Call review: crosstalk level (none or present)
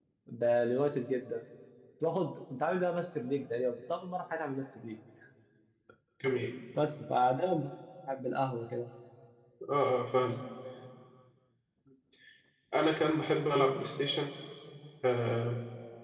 none